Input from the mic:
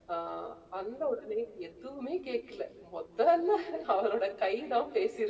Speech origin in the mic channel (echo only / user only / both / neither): echo only